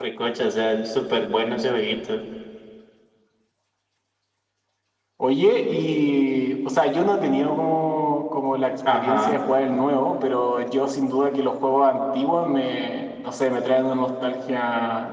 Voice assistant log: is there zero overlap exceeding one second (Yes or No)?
Yes